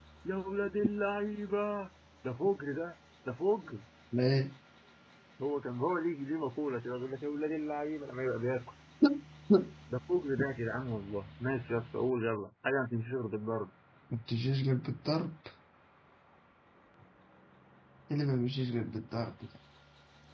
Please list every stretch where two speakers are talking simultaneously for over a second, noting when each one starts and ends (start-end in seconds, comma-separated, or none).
none